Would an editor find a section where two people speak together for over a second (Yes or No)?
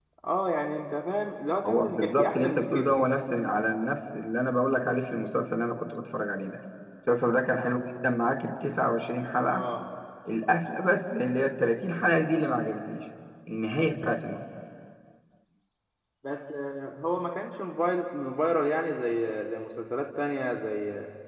Yes